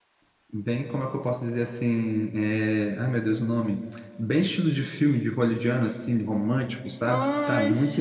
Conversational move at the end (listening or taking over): taking over